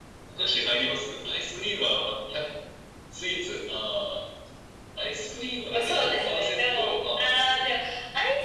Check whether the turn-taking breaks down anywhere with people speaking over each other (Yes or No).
Yes